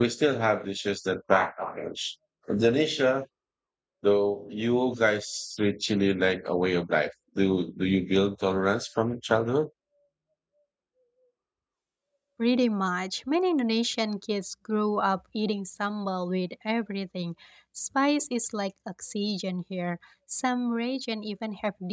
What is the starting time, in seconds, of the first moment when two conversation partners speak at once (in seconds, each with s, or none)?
none